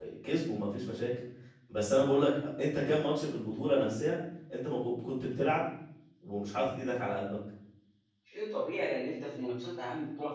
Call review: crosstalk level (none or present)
none